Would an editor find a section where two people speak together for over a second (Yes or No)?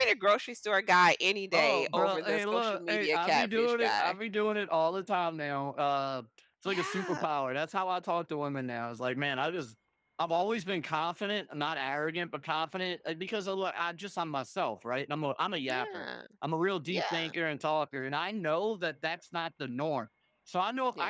Yes